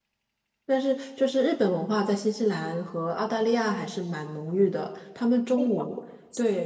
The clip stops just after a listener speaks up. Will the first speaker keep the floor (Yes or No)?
Yes